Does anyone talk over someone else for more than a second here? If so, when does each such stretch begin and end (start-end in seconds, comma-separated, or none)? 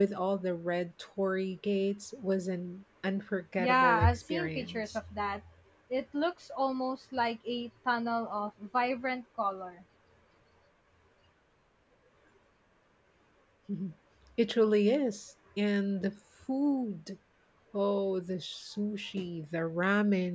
3.6-5.0